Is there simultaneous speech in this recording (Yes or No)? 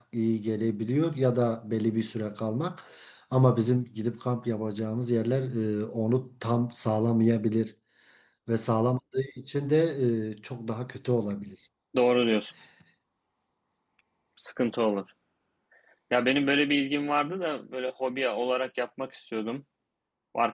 No